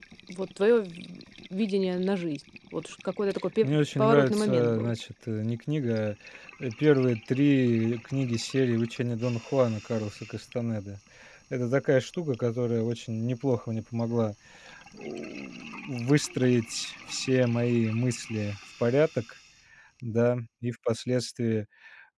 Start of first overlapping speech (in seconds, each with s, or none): 3.6 s